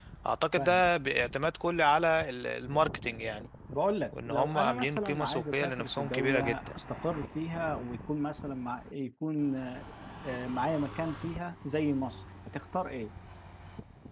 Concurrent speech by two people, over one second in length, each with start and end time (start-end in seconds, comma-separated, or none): 4.2-6.7